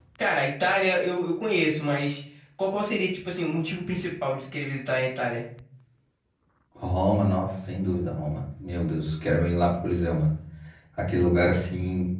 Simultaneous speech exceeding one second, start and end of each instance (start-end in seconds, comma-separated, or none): none